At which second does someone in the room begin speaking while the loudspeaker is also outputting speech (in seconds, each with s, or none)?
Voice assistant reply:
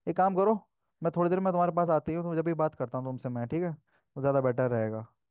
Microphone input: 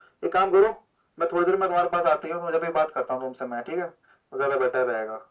none